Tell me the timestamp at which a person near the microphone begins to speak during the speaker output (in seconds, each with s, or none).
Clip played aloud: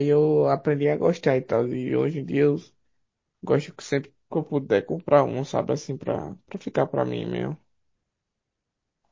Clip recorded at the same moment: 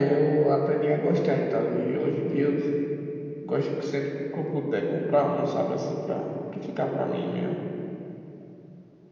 none